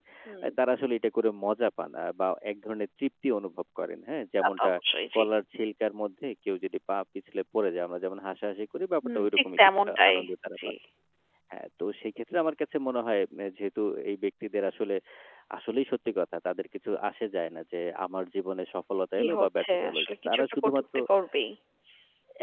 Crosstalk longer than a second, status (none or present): present